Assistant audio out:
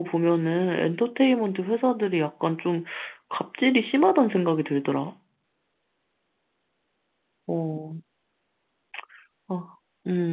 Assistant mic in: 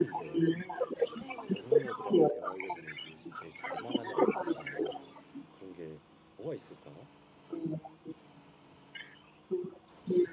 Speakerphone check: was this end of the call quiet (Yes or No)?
No